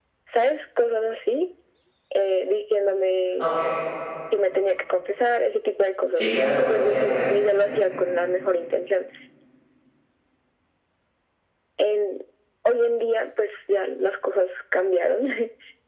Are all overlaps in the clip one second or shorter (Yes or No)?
No